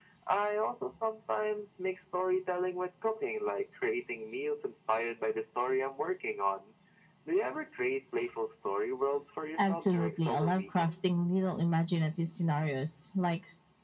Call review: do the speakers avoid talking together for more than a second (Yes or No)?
No